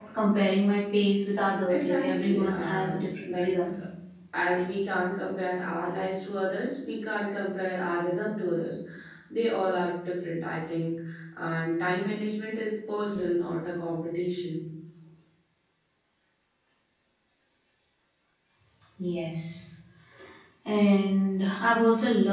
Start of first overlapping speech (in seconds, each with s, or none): 1.7 s